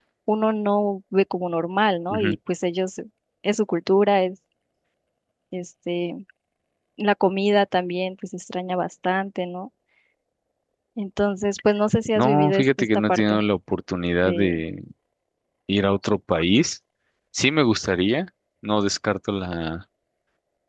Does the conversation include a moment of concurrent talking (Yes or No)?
Yes